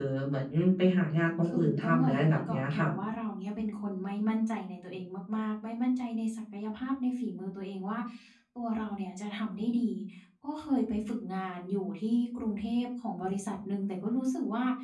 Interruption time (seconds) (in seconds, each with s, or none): 1.4 s